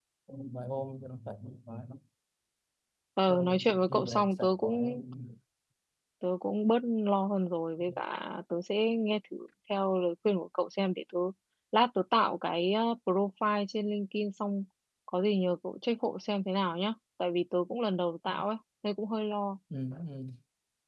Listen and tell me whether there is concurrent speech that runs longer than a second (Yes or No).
Yes